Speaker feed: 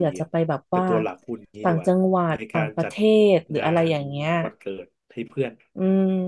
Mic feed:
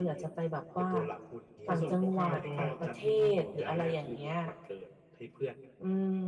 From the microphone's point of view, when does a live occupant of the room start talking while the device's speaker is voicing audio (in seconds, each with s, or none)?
1.6 s